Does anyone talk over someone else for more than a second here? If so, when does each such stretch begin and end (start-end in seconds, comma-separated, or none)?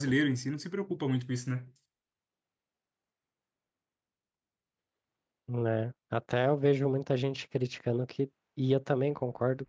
none